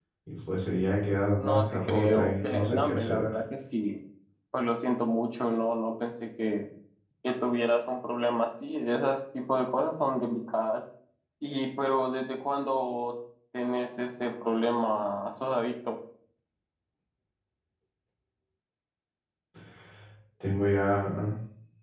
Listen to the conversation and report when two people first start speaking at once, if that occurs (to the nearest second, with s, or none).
1 s